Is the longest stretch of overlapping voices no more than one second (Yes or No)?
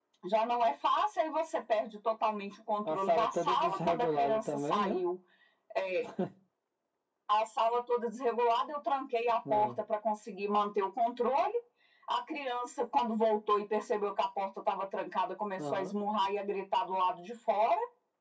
No